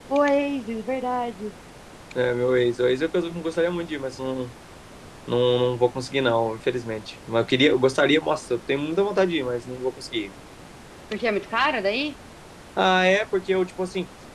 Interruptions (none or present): none